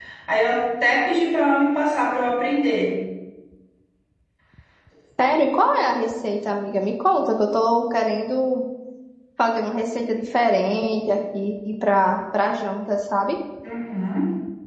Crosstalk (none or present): none